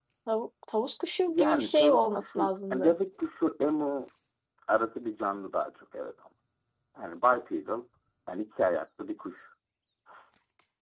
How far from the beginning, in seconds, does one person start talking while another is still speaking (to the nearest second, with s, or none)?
1 s